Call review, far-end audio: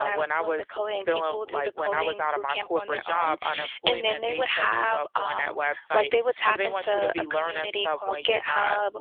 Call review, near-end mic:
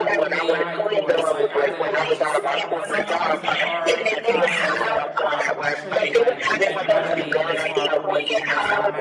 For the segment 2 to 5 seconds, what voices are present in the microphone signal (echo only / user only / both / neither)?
both